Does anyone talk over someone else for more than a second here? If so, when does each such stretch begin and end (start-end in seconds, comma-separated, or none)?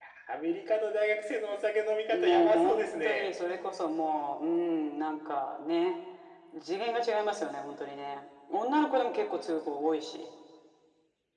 2.1-3.3